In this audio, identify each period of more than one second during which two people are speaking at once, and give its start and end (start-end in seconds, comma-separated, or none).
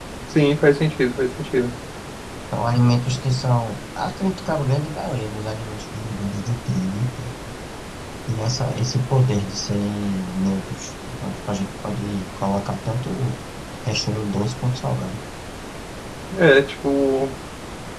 none